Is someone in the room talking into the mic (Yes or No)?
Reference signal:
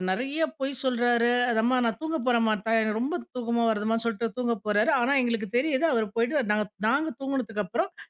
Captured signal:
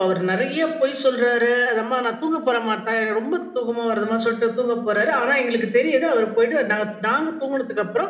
No